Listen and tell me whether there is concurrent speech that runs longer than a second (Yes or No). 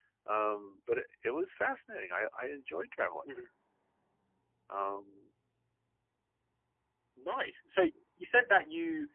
No